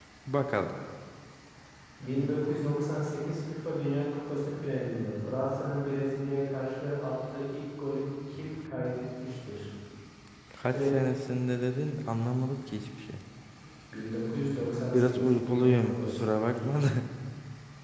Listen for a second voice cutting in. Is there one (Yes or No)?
Yes